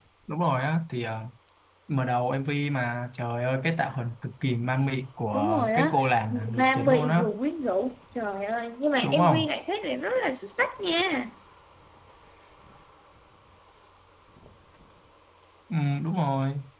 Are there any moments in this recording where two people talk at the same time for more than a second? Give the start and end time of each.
5.3-7.2

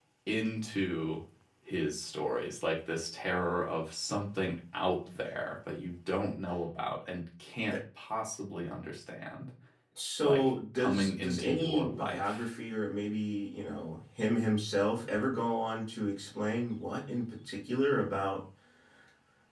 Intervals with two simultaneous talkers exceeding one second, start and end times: 10.2-12.4

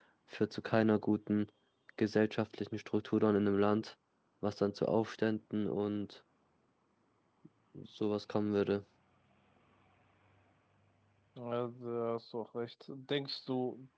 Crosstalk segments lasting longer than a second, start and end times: none

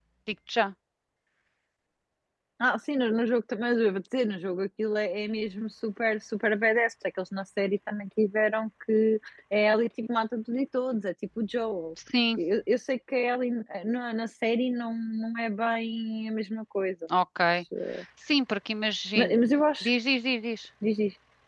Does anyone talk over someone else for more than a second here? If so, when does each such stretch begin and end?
none

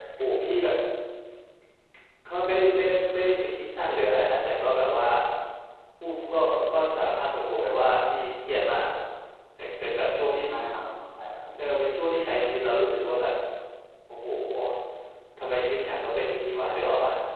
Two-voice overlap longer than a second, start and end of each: none

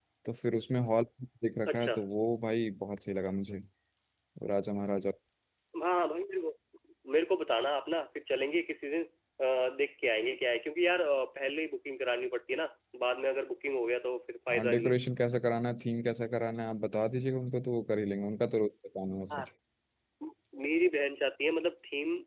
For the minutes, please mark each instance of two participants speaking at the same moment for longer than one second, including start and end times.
none

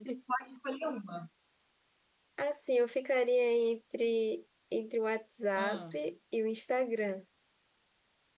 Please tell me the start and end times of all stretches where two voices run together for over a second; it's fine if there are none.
none

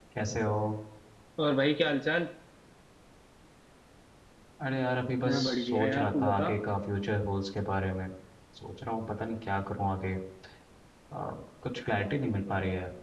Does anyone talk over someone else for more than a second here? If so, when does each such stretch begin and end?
5.2-6.5

